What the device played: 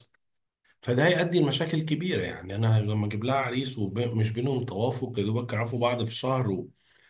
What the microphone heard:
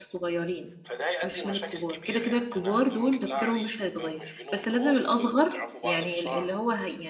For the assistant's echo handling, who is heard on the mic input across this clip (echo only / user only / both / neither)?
both